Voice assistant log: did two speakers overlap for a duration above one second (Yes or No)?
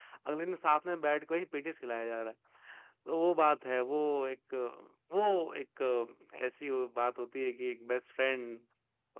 No